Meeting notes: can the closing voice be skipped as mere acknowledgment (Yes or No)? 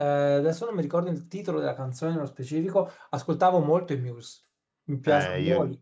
No